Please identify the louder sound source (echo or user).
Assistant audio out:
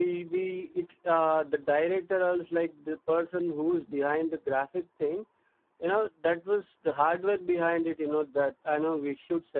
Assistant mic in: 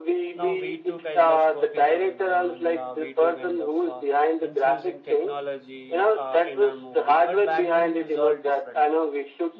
echo